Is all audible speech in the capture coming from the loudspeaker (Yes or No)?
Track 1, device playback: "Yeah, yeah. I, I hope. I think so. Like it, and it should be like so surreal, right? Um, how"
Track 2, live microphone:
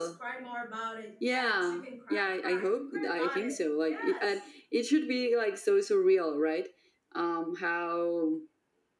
No